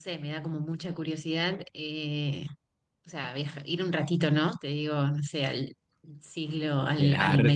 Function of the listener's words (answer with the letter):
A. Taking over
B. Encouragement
A